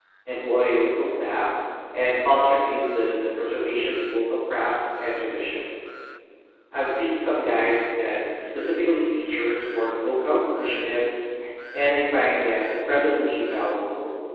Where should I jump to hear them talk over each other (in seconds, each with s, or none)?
none